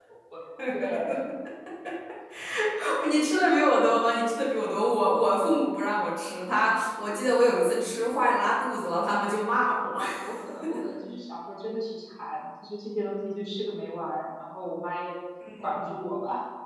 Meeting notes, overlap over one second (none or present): none